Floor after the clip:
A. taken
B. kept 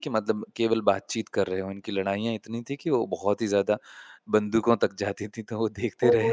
A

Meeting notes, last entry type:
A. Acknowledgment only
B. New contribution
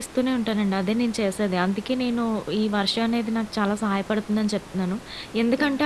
A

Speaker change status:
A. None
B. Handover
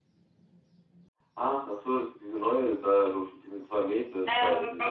B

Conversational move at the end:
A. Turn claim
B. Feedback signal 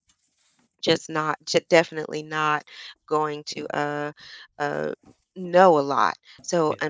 B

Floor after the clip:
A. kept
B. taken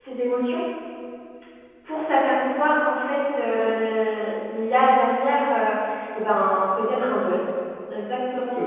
A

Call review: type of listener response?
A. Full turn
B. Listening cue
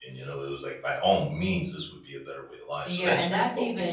A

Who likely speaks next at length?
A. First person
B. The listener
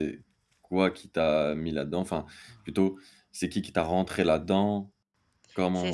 B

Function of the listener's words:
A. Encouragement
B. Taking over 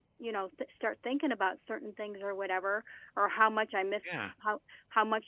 A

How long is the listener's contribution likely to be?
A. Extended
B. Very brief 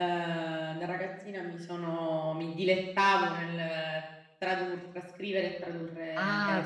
A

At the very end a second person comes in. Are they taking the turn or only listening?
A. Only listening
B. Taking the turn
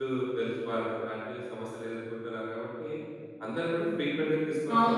B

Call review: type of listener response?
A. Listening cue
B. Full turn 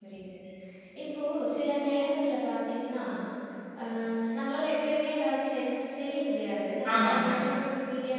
A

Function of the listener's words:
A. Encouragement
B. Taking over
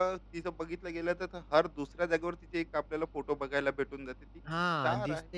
B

